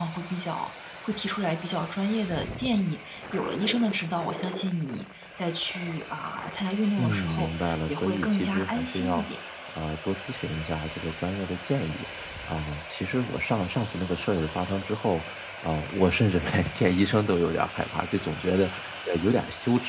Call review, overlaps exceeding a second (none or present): present